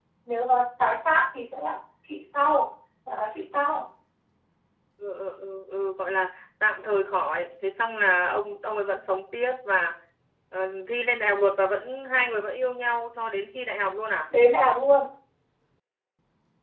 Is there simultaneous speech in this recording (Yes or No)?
No